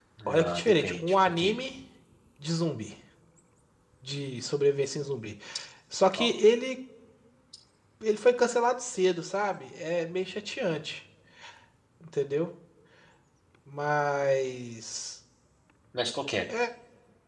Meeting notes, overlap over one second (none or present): present